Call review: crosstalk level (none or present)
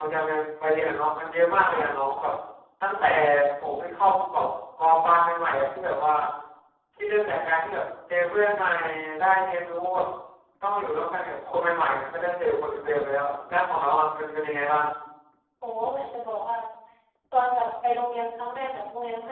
none